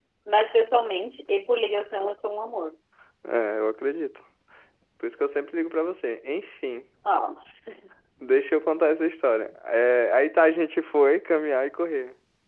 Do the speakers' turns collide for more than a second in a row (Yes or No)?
No